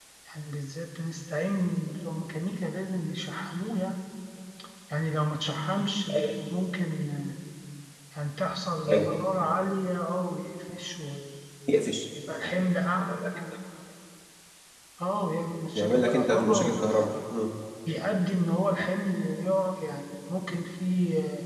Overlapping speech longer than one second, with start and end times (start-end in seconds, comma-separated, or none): 15.8-17.1